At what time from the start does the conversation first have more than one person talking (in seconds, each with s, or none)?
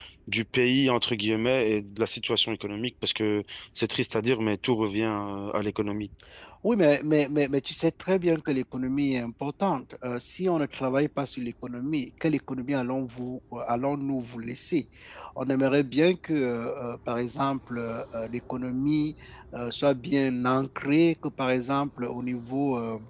none